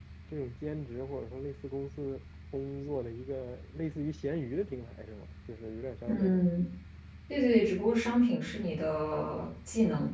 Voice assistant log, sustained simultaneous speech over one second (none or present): none